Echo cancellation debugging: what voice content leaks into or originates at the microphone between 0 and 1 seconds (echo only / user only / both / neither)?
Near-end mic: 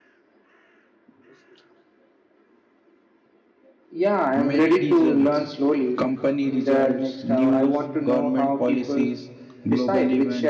neither